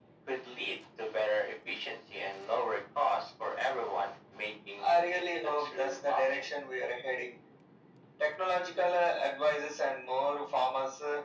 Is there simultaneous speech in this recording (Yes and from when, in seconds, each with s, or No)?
Yes, from 4.8 s